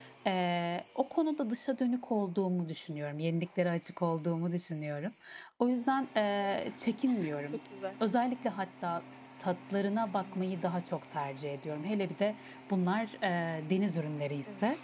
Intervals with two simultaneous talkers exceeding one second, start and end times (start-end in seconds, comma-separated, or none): none